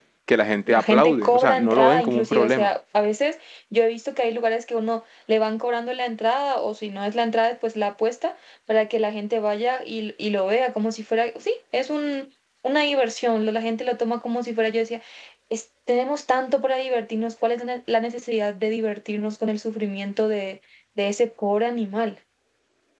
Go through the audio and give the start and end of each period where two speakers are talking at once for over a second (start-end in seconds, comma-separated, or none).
0.7-2.7